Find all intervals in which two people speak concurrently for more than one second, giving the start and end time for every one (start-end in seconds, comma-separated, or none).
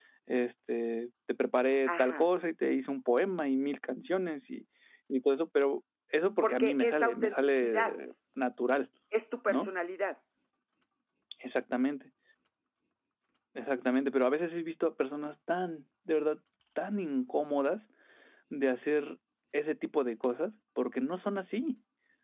6.4-7.9